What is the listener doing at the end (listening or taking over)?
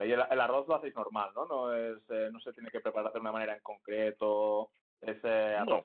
listening